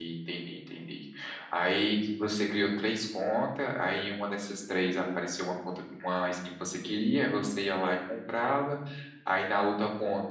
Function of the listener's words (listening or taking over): listening